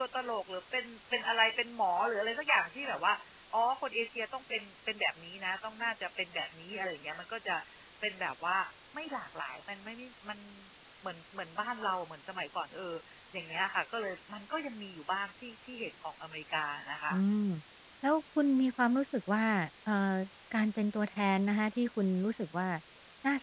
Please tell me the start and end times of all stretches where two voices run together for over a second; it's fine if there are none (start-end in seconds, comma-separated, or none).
none